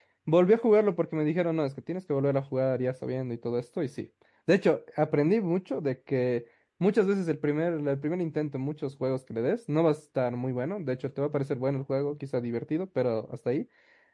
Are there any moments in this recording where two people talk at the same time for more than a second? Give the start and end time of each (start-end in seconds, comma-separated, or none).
none